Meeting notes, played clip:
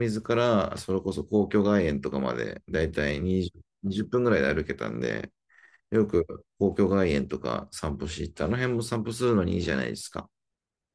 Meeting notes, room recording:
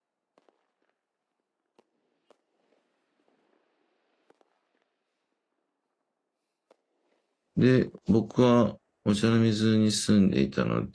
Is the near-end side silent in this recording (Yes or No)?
No